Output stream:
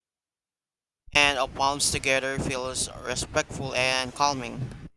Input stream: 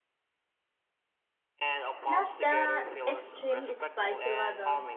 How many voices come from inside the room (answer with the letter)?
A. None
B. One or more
B